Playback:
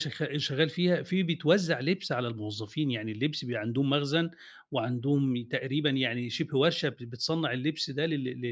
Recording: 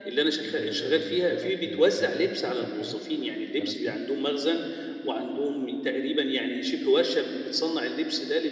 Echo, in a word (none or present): present